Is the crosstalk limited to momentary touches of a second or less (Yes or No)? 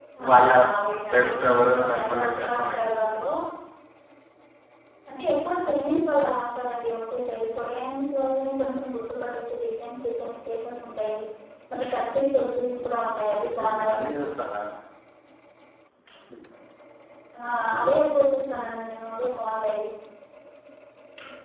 No